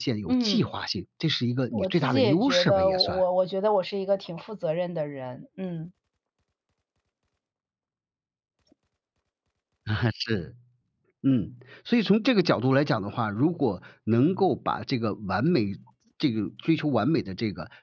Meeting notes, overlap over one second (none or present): present